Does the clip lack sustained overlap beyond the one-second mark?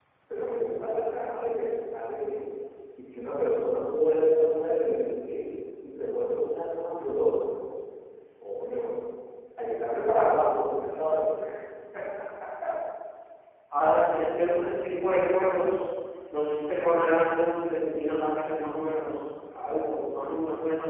Yes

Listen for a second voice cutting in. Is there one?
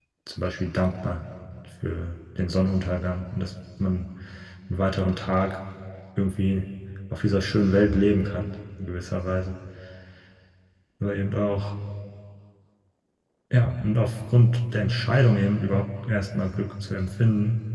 No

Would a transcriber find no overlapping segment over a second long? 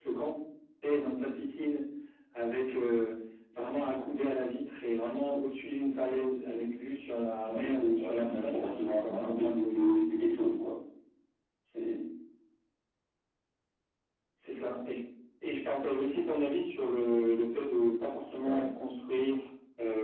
No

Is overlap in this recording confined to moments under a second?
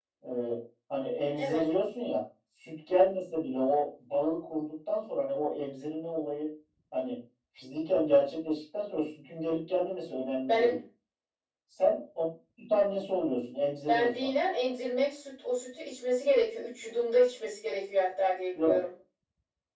Yes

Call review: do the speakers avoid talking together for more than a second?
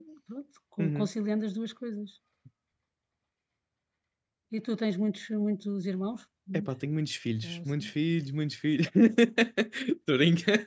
Yes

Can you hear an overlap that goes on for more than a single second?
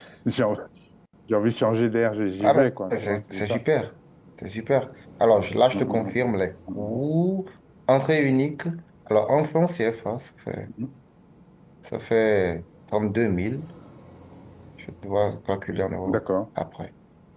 Yes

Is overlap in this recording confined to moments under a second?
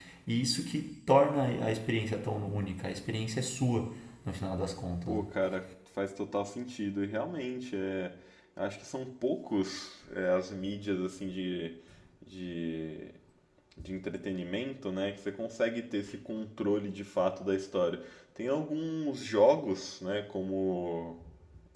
Yes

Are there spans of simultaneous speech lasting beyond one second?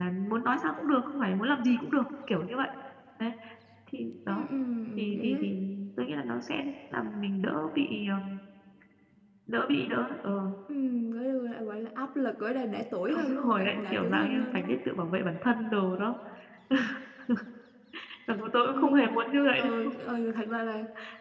Yes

